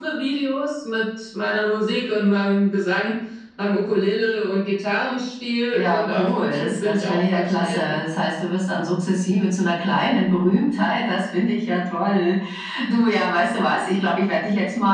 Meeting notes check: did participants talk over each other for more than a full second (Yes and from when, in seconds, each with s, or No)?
Yes, from 5.7 s